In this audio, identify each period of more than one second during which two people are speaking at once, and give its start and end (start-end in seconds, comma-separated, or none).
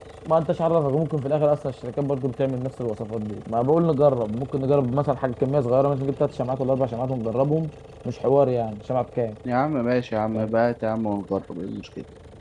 none